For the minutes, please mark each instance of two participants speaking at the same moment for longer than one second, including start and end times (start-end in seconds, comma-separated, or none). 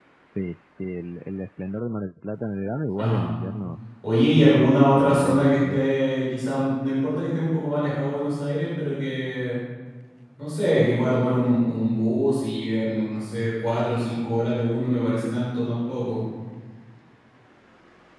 4.5-5.8